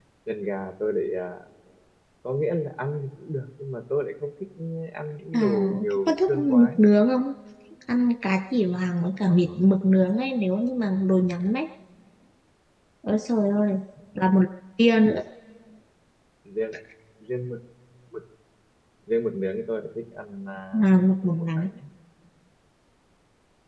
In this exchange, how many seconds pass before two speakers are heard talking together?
5 s

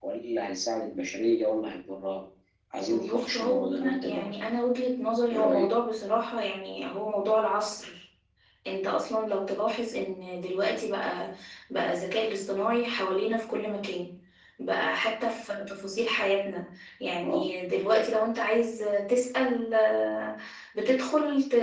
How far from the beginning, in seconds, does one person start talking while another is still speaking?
3 s

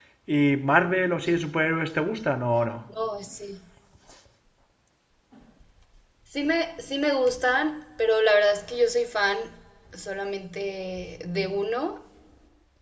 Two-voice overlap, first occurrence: none

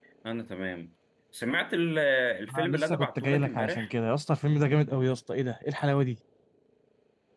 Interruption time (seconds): 3 s

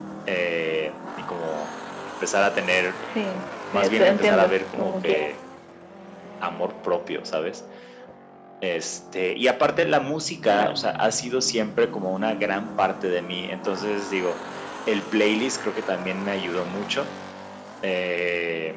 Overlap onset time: 4 s

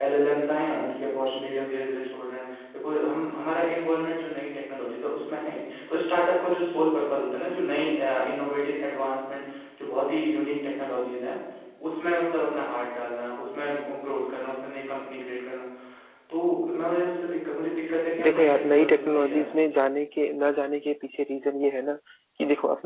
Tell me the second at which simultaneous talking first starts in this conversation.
18 s

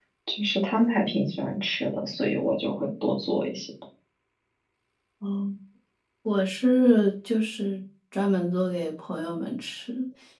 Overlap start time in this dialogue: none

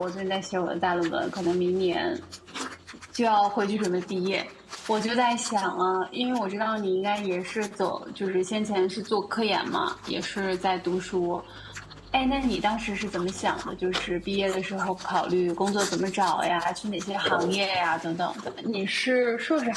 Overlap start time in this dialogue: none

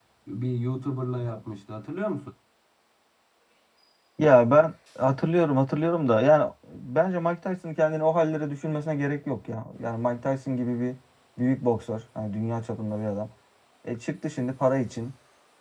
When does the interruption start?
none

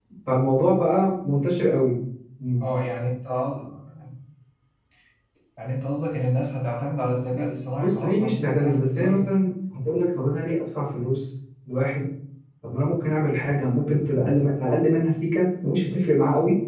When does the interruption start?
8 s

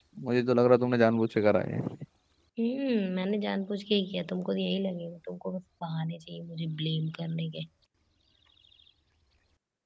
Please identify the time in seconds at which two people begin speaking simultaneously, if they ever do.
none

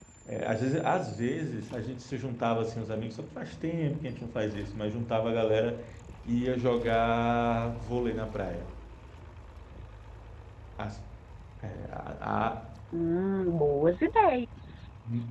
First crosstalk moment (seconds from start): none

